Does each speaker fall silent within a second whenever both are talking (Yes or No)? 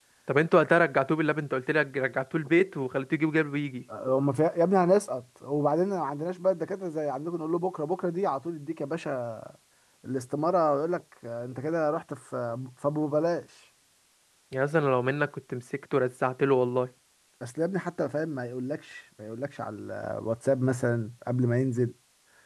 Yes